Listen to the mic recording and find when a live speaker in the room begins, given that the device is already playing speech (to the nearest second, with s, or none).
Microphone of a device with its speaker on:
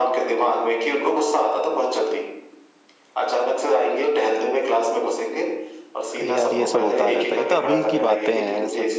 6 s